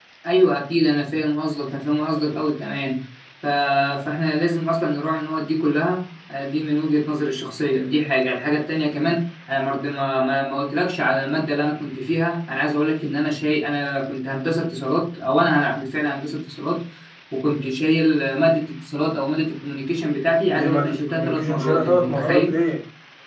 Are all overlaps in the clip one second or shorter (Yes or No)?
No